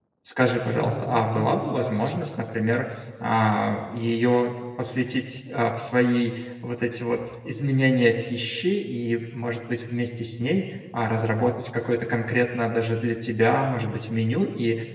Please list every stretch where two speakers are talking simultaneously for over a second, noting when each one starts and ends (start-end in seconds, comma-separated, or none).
0.7-2.3